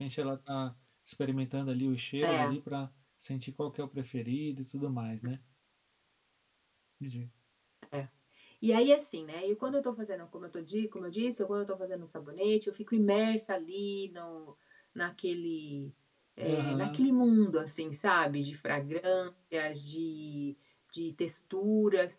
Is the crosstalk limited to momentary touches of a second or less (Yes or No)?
Yes